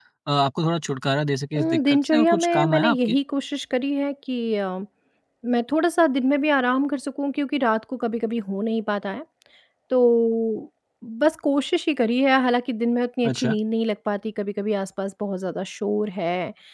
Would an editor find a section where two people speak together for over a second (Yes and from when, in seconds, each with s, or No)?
Yes, from 1.6 s